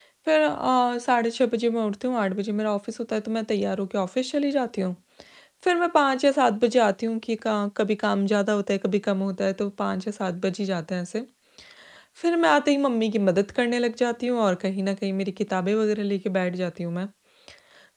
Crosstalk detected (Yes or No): No